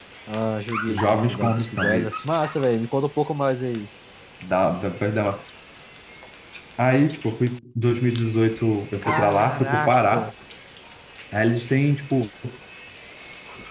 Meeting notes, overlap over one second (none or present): present